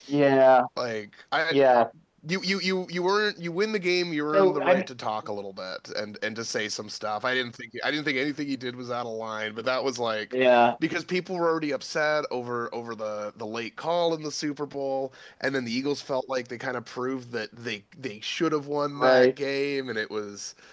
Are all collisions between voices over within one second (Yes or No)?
Yes